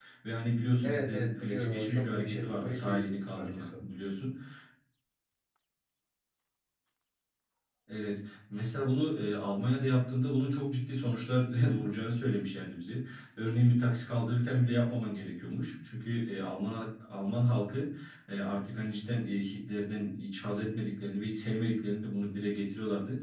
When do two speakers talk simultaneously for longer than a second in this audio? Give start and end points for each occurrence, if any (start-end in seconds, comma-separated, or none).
0.8-3.7